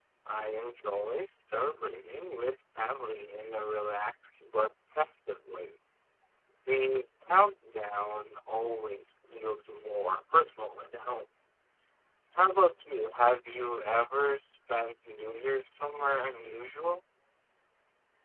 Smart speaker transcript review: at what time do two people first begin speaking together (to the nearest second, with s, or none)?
none